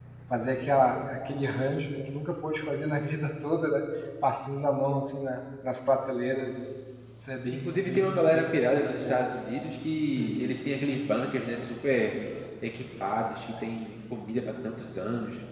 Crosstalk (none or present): present